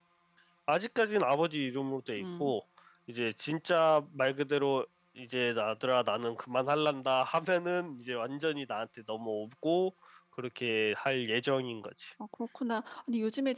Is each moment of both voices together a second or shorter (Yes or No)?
Yes